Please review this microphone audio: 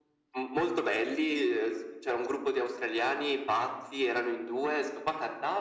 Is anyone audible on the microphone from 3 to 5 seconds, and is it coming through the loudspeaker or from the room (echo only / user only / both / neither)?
echo only